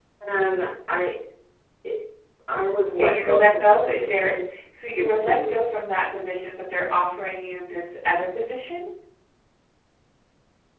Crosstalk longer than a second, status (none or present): present